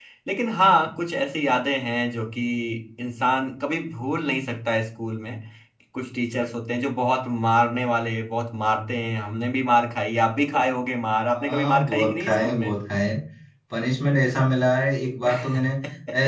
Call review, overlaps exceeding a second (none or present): present